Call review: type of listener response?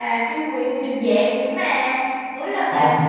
listening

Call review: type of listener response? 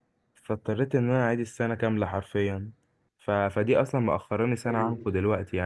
listening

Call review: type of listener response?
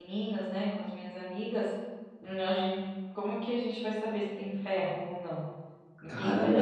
taking over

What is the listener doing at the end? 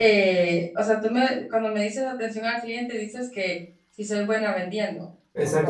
taking over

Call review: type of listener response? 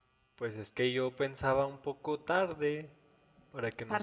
listening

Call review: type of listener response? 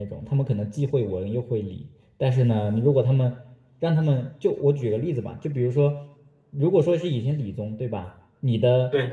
listening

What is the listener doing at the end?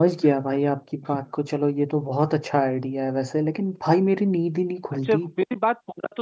taking over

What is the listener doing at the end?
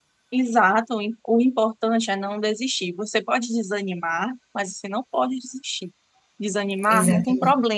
listening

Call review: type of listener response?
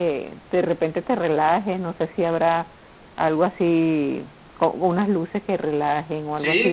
taking over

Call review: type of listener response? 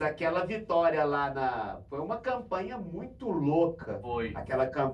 listening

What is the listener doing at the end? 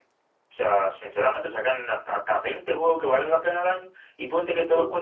listening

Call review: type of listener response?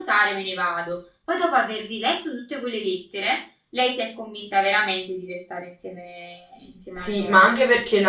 taking over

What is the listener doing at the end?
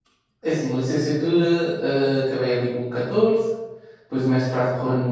listening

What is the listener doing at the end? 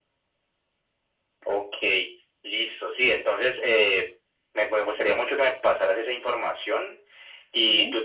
listening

